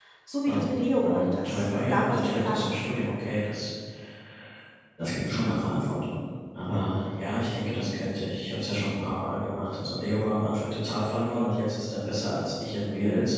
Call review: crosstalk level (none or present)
present